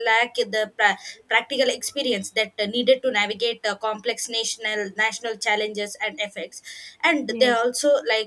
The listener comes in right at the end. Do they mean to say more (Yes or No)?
No